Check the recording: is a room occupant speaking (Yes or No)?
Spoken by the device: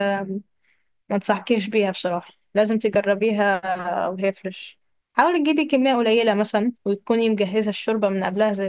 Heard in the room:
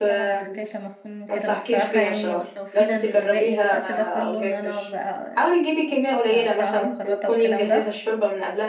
Yes